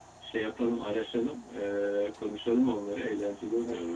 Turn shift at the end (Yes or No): Yes